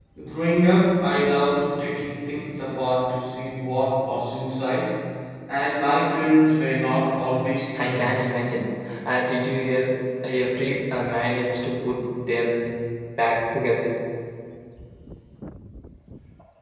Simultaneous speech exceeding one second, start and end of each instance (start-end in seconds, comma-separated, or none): none